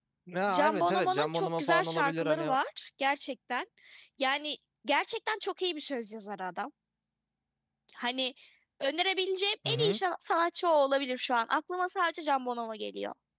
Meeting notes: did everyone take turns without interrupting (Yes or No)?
No